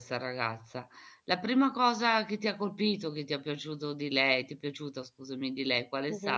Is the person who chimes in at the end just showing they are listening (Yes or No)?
No